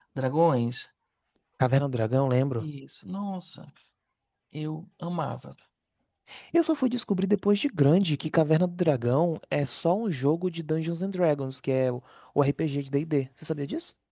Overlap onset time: none

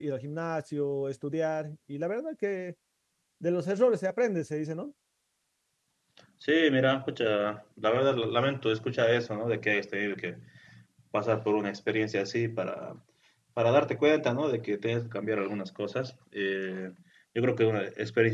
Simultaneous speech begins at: none

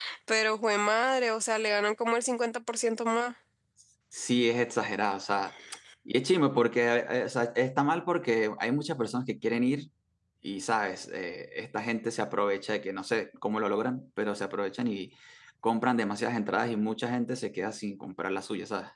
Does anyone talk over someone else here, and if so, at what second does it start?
none

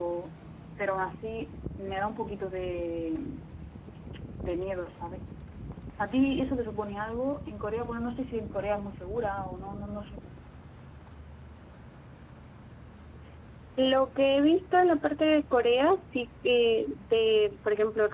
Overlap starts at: none

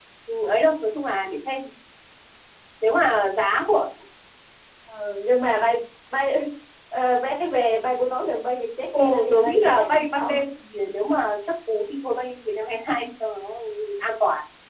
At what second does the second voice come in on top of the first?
9 s

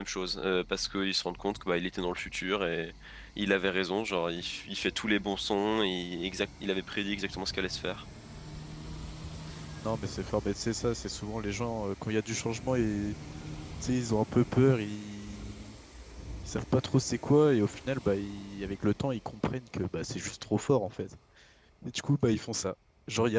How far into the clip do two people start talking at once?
none

